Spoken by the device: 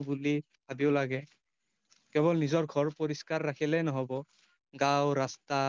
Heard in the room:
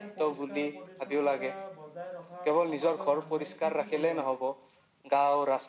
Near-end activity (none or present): present